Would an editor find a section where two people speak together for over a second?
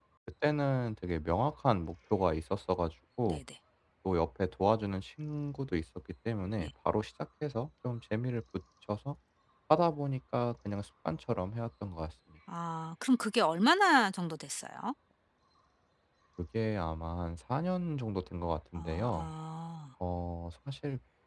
No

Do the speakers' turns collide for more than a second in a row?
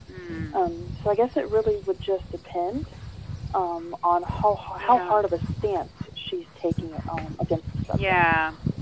No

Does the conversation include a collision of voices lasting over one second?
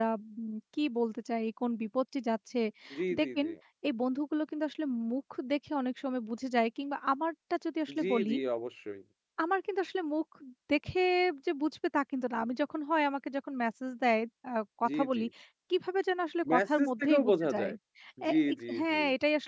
Yes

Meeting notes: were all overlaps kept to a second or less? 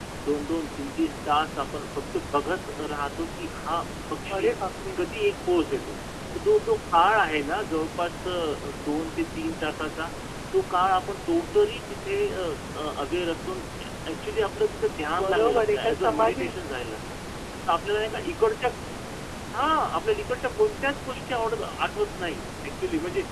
No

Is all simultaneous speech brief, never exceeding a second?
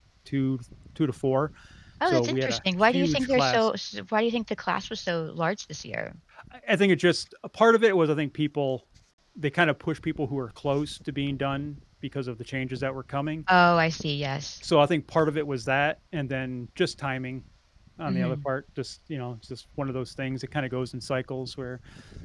No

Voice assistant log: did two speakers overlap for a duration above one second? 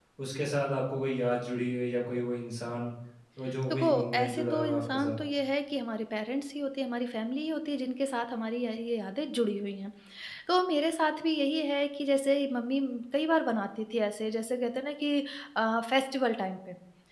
Yes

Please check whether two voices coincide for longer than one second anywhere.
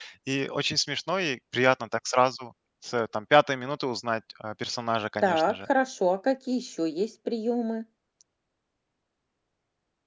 No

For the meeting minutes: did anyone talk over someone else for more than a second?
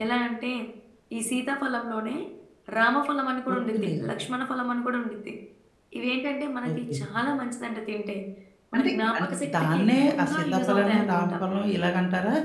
Yes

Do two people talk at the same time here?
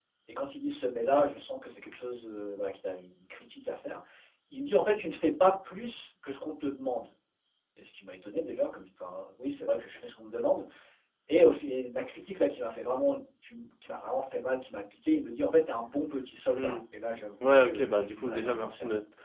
Yes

